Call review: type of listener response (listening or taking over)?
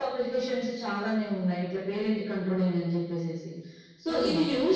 listening